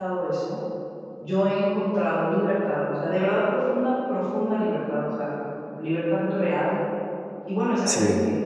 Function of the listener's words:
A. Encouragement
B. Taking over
A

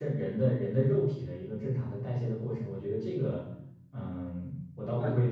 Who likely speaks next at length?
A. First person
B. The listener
B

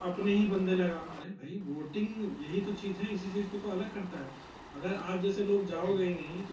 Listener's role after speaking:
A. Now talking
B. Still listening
B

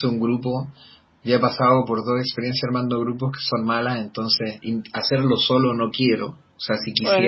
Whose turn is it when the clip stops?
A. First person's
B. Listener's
B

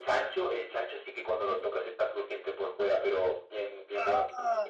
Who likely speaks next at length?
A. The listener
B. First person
B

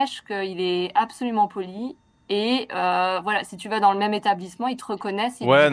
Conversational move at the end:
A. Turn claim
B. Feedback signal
A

